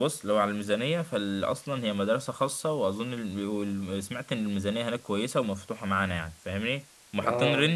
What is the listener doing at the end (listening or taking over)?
listening